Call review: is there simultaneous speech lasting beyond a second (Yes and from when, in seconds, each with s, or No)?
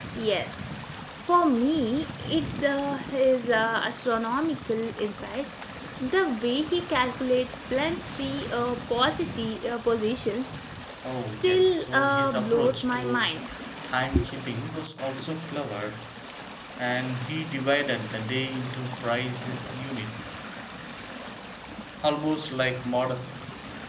Yes, from 11.2 s